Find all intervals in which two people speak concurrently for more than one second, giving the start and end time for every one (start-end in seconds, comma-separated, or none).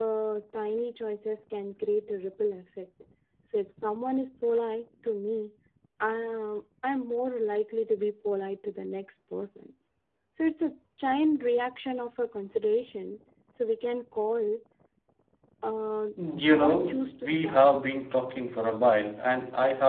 16.5-17.7